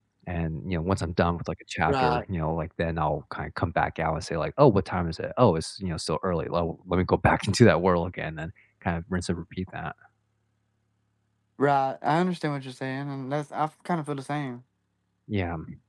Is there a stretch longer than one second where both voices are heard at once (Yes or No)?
No